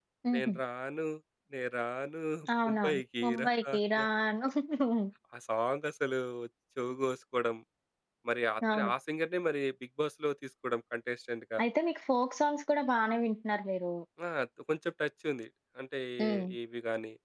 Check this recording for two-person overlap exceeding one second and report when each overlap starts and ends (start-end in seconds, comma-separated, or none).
2.6-4.0